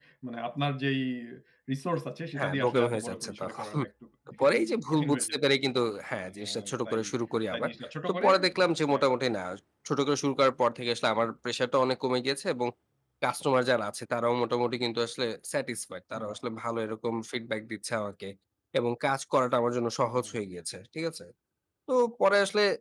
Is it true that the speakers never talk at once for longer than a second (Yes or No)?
No